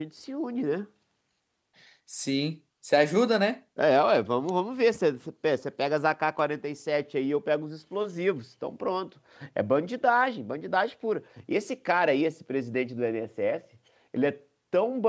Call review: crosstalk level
none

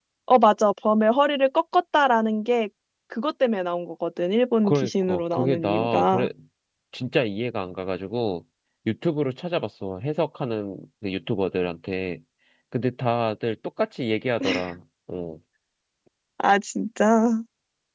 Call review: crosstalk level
present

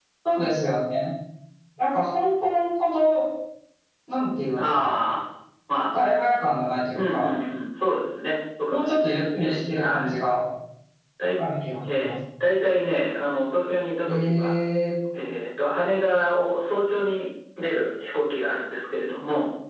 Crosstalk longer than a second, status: present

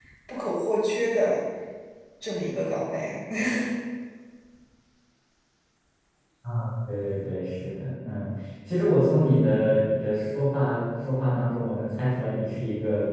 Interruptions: none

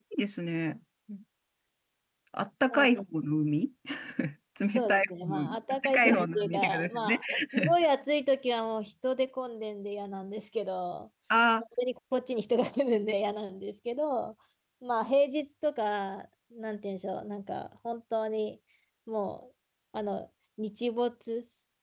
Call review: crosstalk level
present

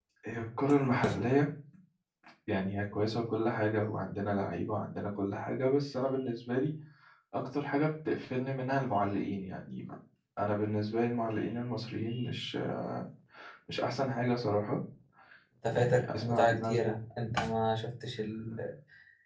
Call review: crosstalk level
present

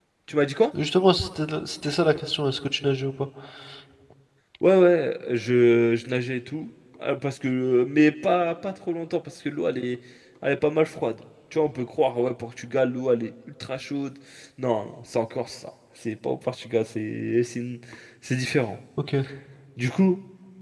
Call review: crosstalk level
none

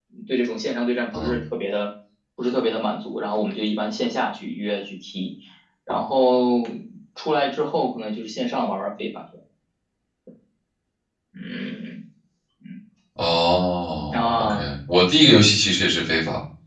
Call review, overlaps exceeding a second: none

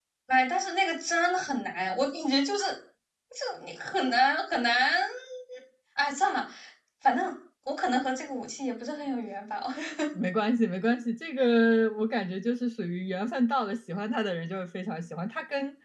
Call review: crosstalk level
none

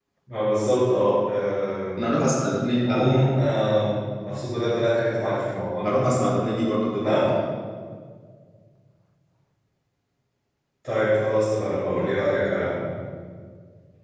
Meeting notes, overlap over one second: none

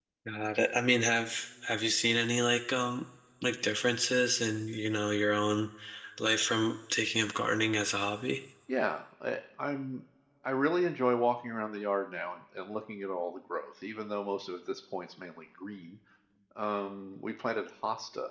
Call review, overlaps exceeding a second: none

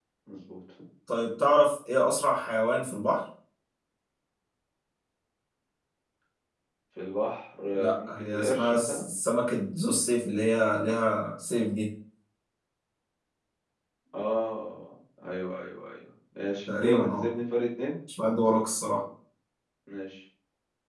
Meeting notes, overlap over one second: present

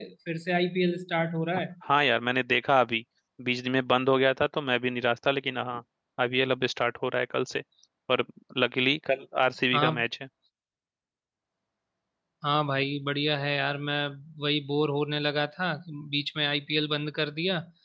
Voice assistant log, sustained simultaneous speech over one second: none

